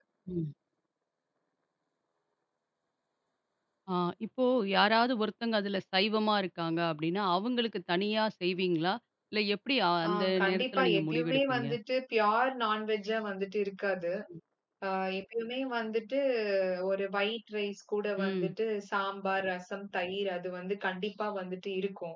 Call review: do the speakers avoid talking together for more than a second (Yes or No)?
No